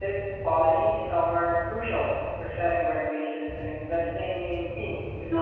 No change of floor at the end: No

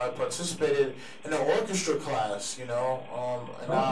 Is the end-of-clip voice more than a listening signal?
No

